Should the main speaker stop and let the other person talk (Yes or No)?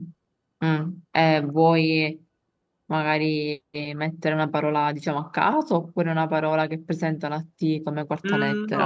Yes